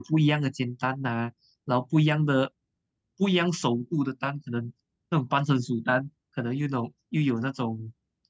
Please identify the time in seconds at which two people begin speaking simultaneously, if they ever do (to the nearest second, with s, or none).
none